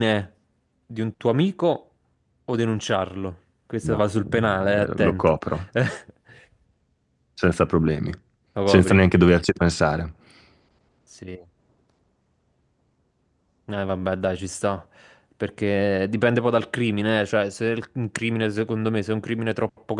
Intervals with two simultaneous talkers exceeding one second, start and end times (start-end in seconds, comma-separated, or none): 3.8-5.3